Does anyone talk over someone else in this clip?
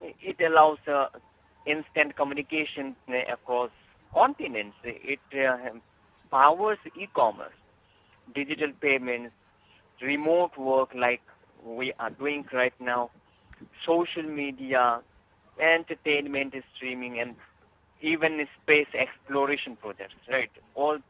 No

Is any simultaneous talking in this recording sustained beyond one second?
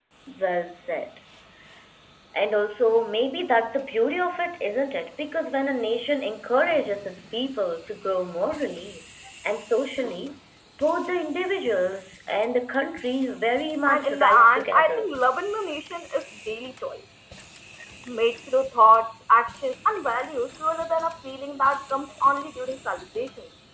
Yes, from 13.9 s

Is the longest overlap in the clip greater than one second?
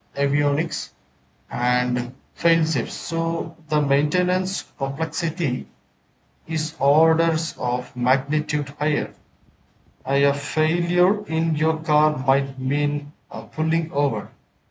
No

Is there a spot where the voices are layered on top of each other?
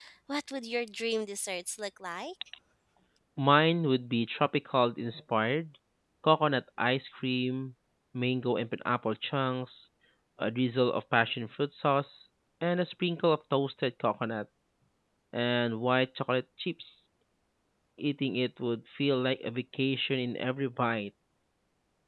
No

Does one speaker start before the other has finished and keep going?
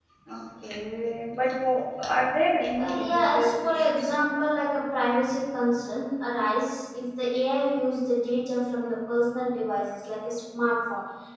Yes, from 2.7 s

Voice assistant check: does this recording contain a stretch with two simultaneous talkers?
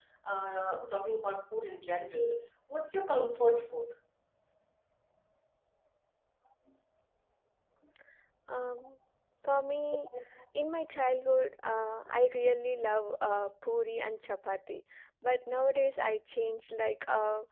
No

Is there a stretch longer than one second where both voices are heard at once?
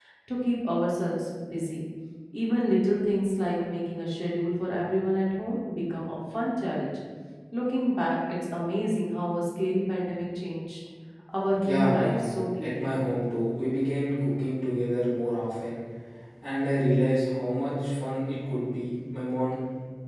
Yes, from 11.6 s

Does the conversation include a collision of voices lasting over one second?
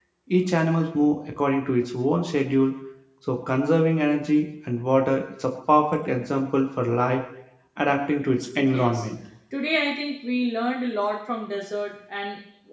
No

